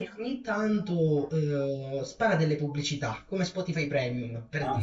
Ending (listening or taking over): taking over